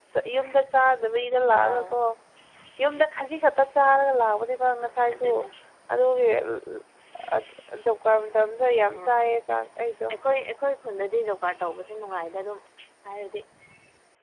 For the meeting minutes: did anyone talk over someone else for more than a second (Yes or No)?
No